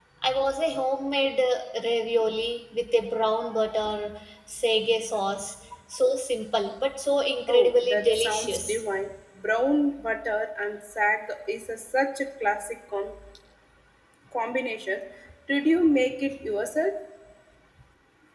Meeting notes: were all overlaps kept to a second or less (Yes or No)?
No